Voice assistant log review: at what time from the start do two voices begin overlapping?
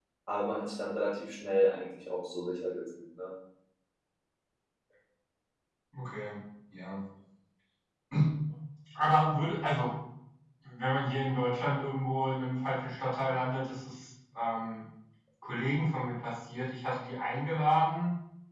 none

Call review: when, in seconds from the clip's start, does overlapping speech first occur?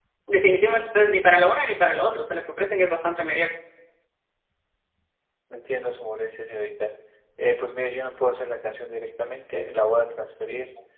none

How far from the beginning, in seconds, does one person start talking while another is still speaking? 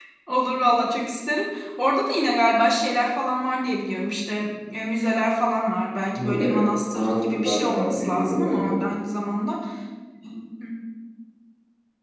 6.1 s

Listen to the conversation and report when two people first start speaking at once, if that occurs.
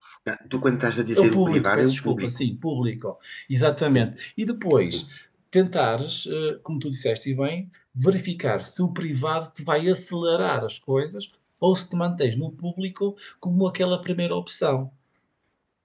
1.1 s

